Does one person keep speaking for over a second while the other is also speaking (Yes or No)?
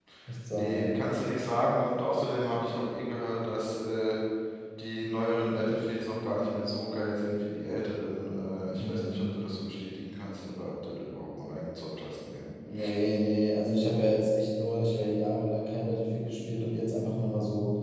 No